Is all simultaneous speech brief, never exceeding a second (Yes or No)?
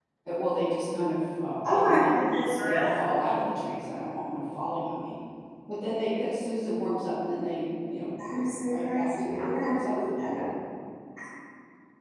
No